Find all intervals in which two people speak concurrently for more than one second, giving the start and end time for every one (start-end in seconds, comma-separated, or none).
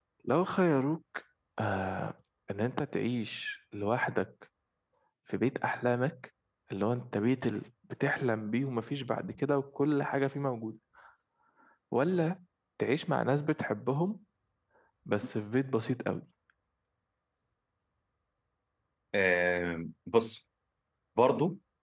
none